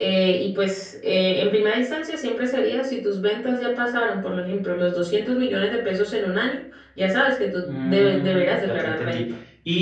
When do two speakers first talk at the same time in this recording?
7.6 s

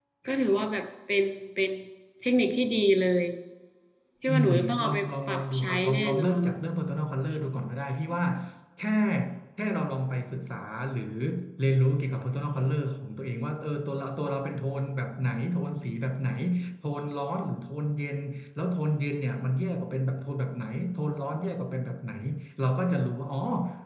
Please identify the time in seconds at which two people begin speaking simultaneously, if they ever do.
4.3 s

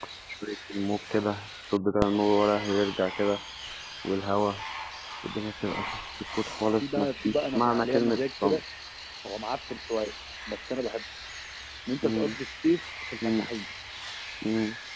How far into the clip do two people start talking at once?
6.8 s

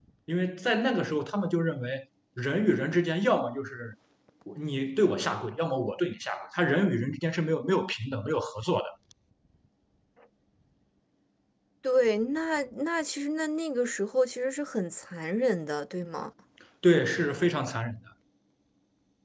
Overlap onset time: none

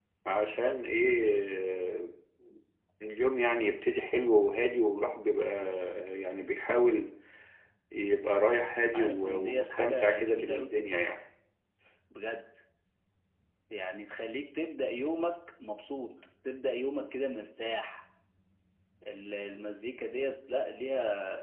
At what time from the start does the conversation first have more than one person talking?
8.9 s

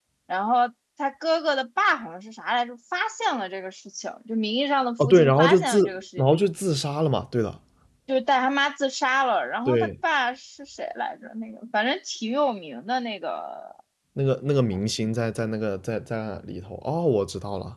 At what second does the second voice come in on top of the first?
5.0 s

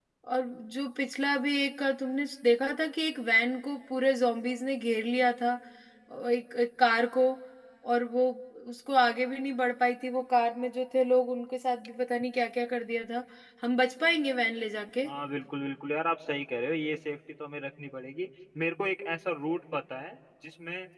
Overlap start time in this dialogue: none

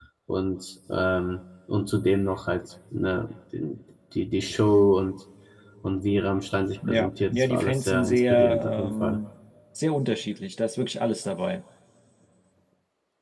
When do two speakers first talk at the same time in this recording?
6.8 s

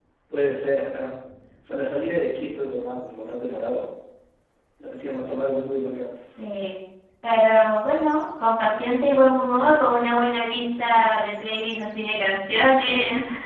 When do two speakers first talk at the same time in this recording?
none

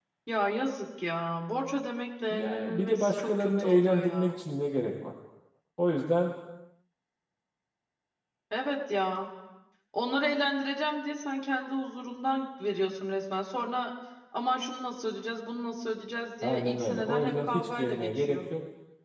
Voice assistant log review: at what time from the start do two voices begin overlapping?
2.3 s

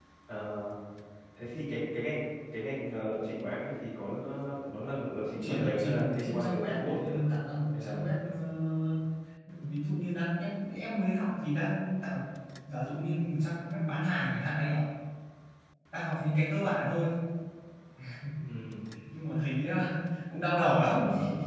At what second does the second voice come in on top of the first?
5.2 s

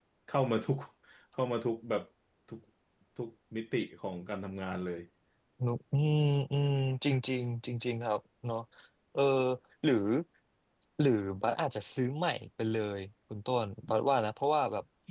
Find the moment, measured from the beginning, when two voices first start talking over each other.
none

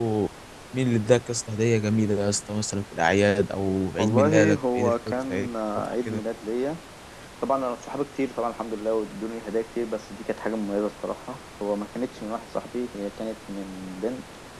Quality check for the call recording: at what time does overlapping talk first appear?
4.0 s

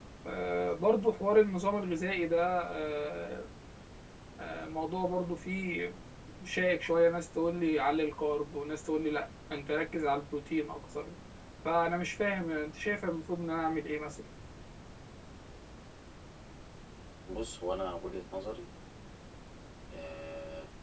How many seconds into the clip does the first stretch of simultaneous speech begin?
none

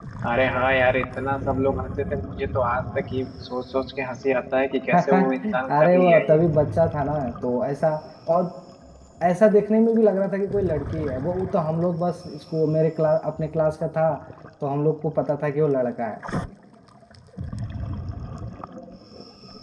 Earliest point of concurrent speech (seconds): 4.9 s

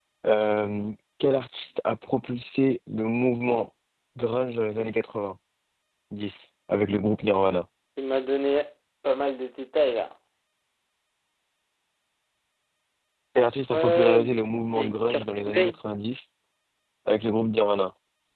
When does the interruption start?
13.7 s

